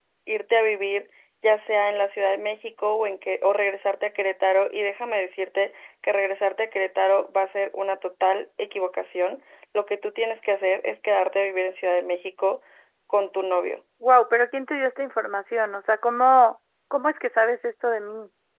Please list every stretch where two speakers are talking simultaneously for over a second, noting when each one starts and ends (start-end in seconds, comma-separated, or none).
none